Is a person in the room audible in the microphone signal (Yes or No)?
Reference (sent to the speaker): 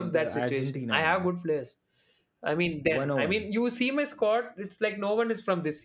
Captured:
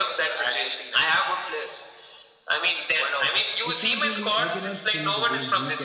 Yes